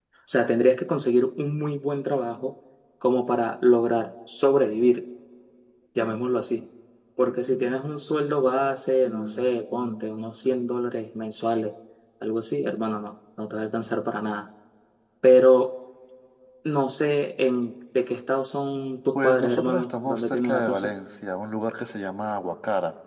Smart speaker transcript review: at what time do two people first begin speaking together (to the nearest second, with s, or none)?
19 s